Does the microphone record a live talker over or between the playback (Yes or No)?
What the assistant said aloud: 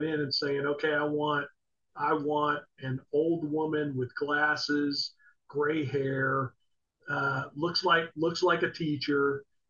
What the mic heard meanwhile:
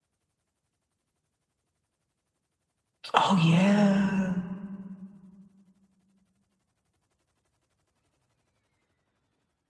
Yes